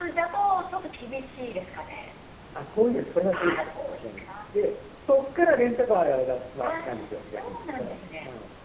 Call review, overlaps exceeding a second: present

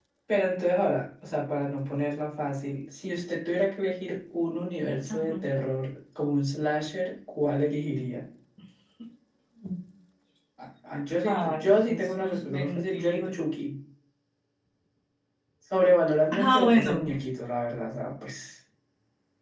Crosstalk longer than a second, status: present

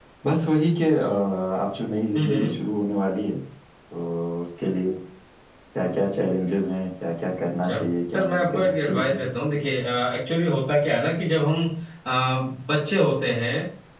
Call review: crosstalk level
present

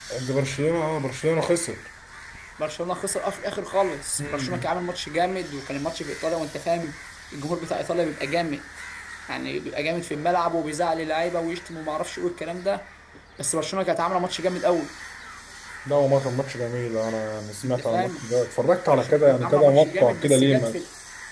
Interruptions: present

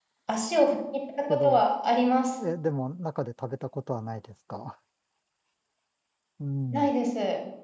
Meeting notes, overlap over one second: none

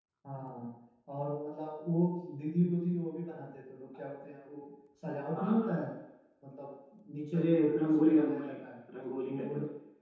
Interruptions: present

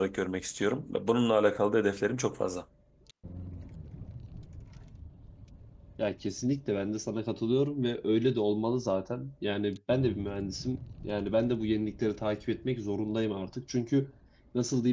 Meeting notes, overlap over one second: none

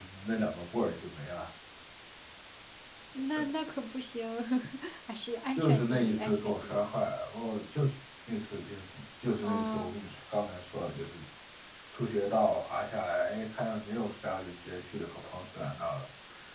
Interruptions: present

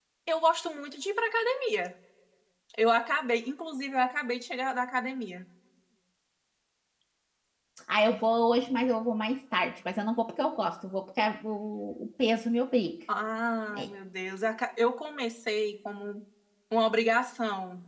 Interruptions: none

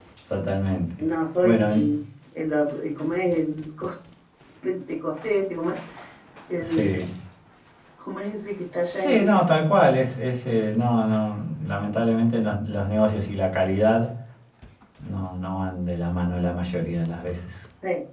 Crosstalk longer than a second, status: none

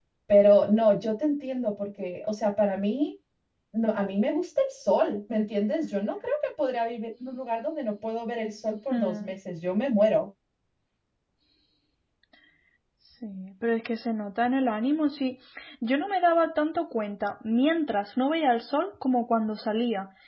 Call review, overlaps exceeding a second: none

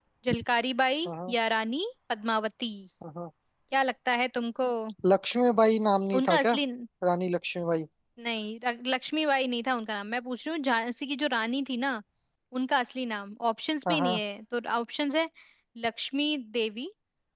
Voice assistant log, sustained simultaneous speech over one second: none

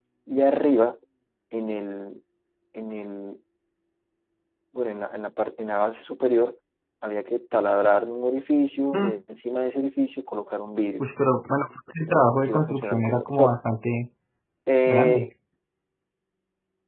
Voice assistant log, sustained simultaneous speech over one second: present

